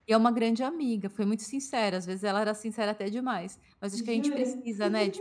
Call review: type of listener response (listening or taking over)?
listening